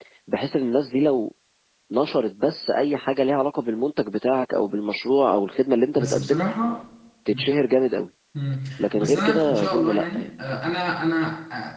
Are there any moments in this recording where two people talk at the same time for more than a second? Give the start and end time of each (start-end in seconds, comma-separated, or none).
8.8-10.3